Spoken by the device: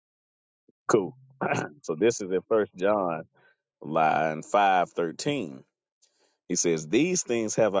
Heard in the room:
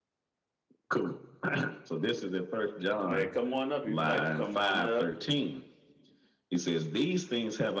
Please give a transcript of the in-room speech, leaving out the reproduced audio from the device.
Hey, come on up if you'd like to come on up.

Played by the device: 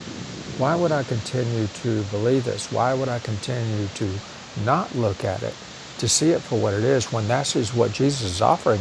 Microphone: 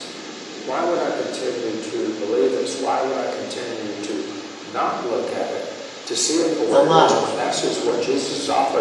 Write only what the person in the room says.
the love

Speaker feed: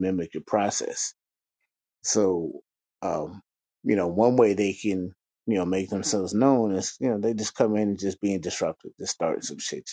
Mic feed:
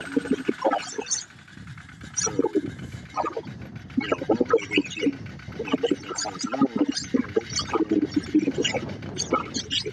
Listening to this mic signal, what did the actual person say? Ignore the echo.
none

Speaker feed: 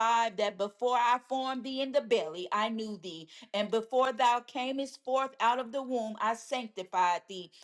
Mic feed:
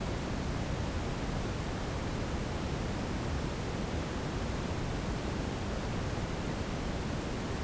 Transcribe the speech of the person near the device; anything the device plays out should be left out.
none

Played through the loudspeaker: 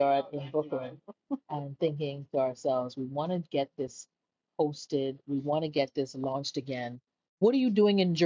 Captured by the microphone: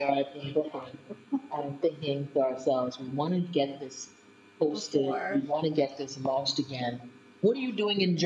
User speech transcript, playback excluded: before

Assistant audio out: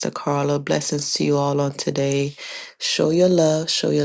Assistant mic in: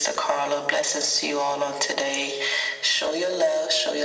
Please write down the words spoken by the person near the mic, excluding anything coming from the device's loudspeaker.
none

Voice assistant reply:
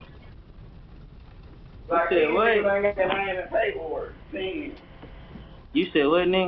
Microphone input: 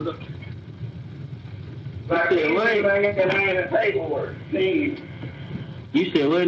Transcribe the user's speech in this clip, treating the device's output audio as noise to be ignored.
none

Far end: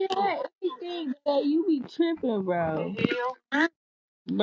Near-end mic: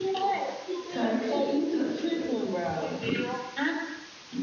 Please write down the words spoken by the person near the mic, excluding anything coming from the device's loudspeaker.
Type shit. Type shit.

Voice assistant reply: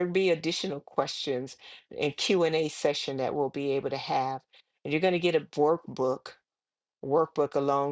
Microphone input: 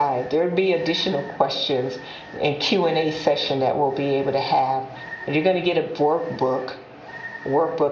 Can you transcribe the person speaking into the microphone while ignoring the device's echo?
none

